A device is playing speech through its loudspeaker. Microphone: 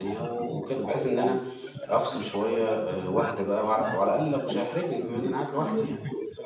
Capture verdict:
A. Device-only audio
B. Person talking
B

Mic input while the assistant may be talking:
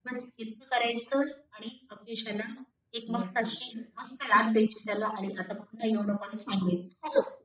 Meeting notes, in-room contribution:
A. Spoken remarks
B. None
A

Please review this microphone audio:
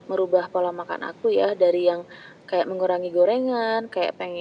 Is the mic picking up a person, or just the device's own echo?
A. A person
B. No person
B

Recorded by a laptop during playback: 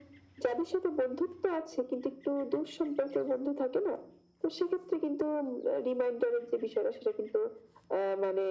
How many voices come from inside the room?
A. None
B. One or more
A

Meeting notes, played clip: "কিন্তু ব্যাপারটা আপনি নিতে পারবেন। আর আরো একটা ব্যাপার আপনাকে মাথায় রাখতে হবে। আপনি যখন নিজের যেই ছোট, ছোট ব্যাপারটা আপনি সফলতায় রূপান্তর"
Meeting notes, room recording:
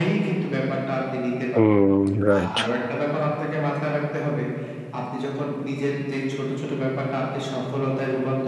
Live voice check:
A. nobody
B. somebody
B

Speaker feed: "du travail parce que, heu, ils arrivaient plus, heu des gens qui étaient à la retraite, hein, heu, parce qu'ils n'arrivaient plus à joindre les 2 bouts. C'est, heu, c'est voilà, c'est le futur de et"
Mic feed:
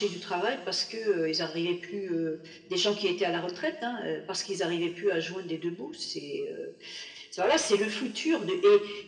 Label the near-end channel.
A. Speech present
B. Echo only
B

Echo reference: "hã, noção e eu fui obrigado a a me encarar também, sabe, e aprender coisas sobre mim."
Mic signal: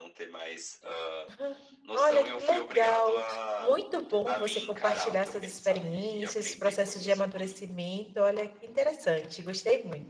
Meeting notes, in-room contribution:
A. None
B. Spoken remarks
B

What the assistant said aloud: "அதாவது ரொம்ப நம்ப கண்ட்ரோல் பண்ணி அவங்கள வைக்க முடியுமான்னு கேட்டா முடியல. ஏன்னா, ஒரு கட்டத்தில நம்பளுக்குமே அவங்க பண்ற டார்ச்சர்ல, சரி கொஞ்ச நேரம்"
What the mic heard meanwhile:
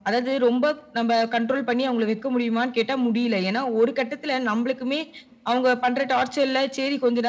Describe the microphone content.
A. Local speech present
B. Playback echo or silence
B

